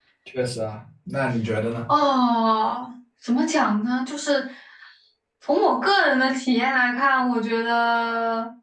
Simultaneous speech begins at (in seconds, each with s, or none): none